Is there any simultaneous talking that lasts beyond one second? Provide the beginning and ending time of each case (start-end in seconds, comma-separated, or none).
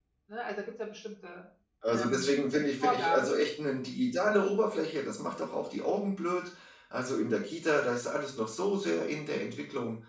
none